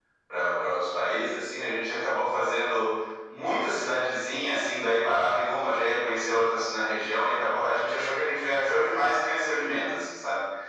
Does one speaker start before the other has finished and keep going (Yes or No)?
No